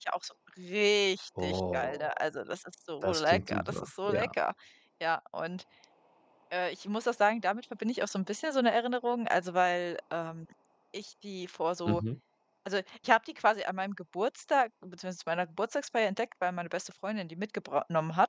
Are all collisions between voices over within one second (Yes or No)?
No